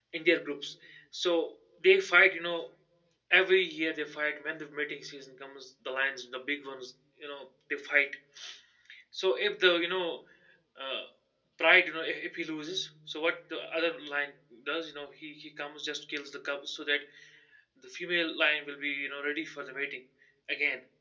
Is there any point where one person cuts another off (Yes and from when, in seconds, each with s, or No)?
No